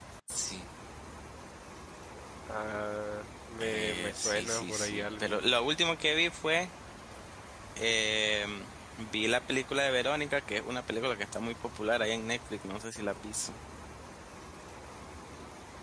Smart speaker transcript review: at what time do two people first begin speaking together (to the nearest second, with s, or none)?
4 s